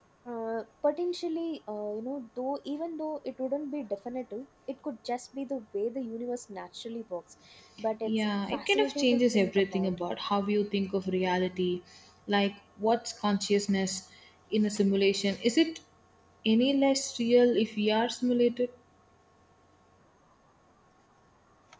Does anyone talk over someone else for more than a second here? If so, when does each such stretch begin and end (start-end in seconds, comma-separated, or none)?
8.0-9.9